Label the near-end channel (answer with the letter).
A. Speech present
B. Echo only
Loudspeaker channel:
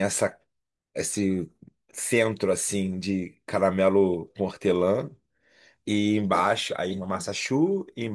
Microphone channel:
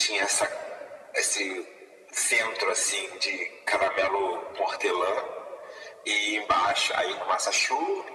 B